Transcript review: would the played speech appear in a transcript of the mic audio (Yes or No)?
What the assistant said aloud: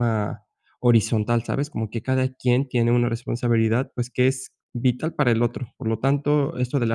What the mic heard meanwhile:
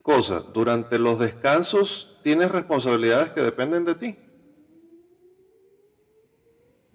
No